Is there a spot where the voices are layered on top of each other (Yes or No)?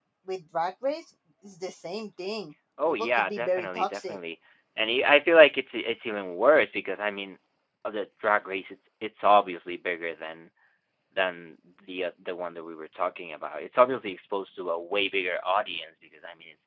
Yes